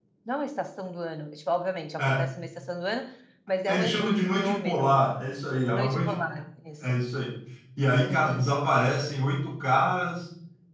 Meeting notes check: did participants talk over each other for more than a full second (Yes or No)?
Yes